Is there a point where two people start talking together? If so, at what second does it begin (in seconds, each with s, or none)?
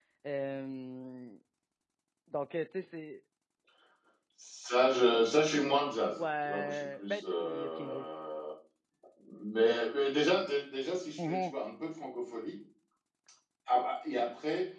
6.1 s